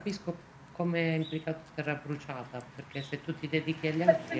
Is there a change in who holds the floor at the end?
Yes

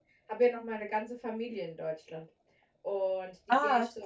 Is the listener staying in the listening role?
Yes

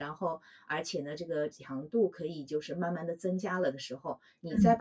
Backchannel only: No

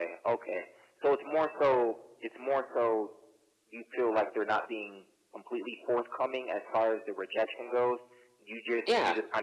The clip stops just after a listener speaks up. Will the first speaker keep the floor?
Yes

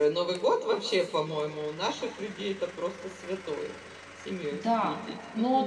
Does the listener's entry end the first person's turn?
Yes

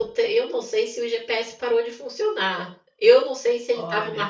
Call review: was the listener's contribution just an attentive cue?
Yes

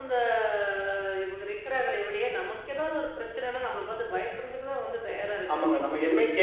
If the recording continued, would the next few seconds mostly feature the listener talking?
Yes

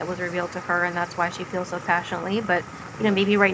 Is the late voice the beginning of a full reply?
No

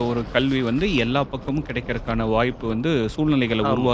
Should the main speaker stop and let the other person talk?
Yes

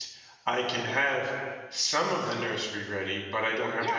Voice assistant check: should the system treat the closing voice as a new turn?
Yes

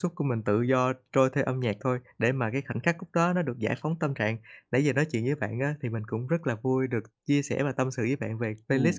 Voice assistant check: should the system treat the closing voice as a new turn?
Yes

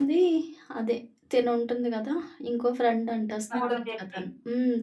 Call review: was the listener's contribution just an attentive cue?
Yes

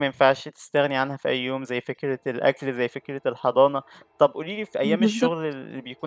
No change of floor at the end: Yes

